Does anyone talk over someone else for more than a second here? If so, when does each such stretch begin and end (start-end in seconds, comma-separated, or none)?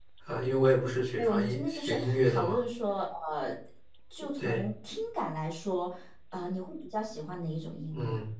1.2-2.6